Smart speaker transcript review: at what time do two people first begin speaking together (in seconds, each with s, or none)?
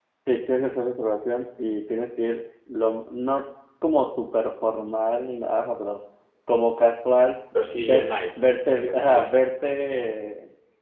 7.5 s